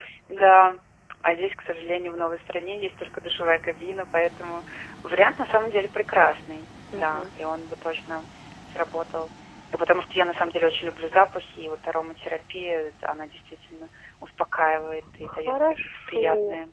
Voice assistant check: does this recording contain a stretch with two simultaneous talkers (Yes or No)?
Yes